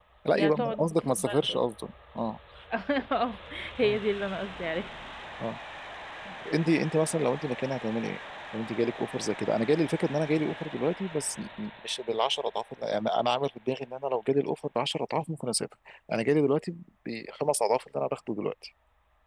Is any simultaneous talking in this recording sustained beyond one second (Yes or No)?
Yes